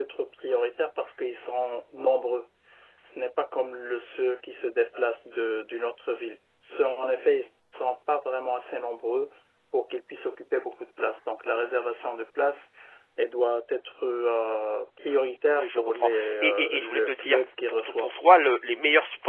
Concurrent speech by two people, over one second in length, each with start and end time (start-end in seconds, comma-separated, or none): 15.6-18.1